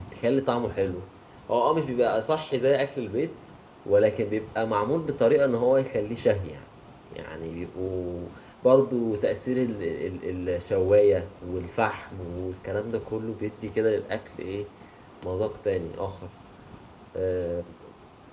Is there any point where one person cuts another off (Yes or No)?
No